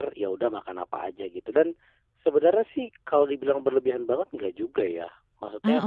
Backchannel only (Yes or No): Yes